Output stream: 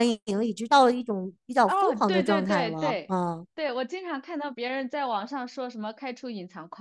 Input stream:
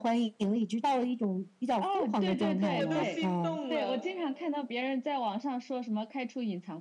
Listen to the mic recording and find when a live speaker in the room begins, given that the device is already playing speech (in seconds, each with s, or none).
2.7 s